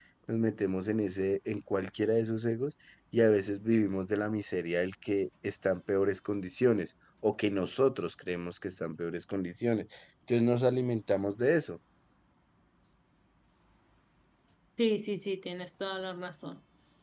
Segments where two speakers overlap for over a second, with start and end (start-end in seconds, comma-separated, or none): none